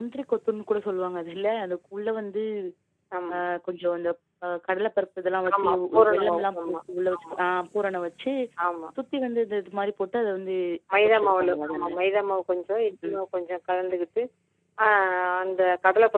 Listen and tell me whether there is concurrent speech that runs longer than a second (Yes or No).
Yes